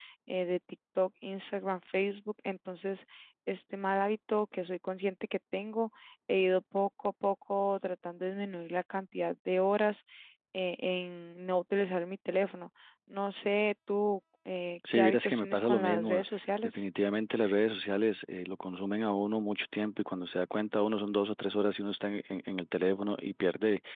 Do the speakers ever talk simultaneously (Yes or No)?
Yes